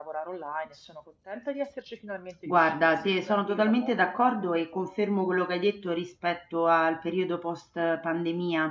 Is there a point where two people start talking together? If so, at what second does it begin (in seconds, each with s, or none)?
2.5 s